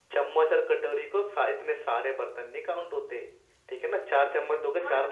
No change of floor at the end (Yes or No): No